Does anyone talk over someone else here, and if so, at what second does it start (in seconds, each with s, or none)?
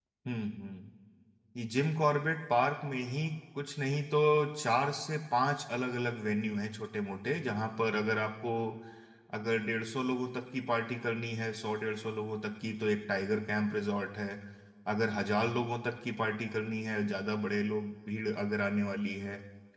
none